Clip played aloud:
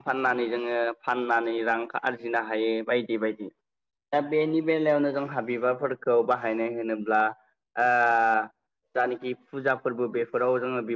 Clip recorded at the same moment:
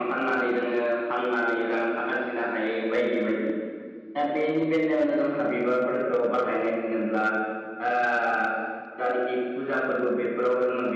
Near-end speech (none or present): none